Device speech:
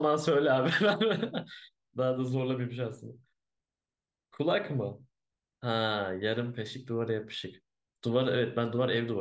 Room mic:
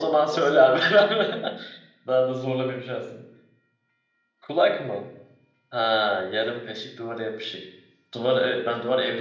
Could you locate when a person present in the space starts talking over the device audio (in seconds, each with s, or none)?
0.3 s